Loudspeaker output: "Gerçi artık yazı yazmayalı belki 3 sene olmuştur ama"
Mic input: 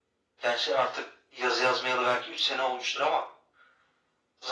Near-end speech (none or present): none